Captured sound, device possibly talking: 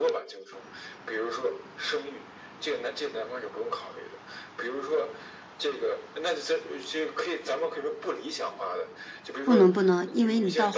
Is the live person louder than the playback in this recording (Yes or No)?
Yes